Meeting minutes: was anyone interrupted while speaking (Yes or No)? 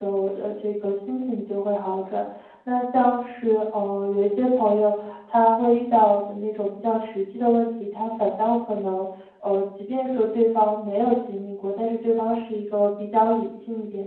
No